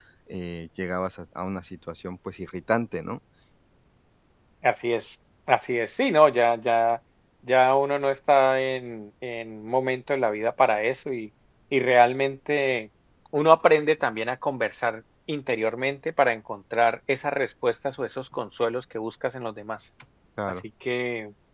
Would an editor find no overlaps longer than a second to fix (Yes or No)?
Yes